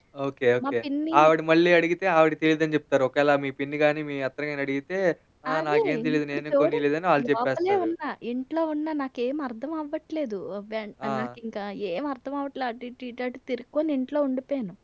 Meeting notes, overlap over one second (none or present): present